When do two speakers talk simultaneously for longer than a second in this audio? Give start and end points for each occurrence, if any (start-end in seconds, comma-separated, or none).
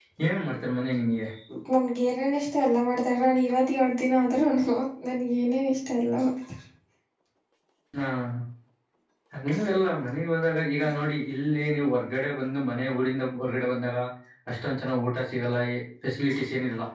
none